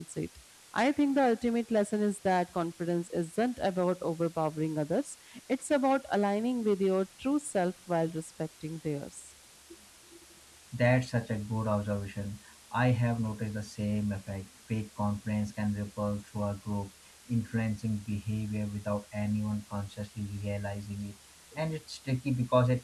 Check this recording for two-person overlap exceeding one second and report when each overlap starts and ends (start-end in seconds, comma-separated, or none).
none